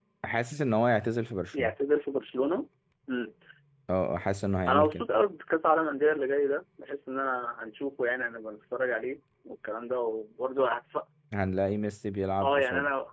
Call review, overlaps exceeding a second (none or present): none